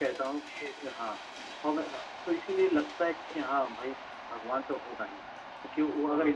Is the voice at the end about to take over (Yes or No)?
No